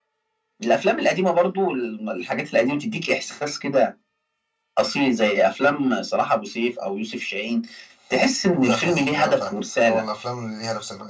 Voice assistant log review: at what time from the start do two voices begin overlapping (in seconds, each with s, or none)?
8.6 s